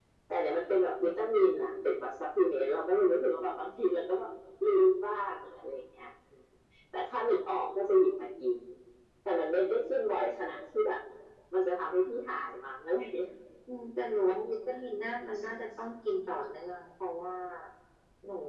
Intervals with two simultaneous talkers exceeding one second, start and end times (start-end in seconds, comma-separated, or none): none